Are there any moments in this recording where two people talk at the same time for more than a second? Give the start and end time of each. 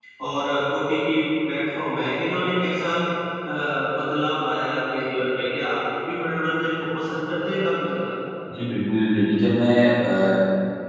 none

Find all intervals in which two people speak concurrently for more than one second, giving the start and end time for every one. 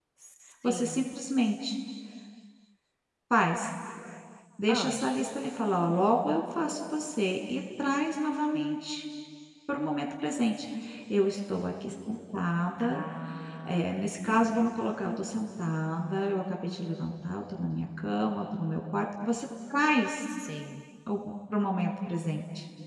none

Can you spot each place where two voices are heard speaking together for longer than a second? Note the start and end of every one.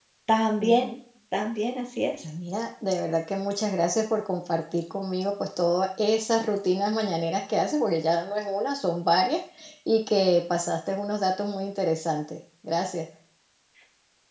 none

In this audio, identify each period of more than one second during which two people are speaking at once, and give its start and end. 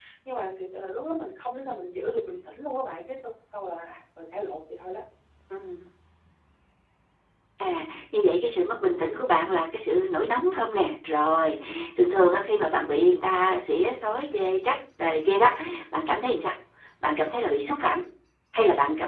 none

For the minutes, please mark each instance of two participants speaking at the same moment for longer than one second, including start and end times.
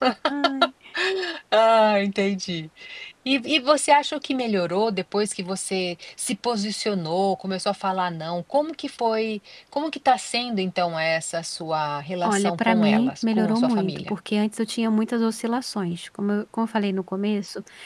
12.2-14.1

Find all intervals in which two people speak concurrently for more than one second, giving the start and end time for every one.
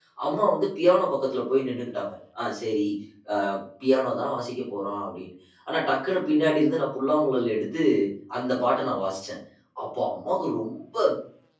none

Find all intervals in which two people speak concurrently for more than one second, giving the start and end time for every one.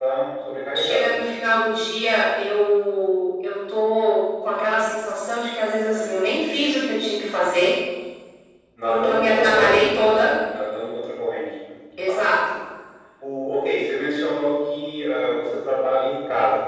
8.9-10.1

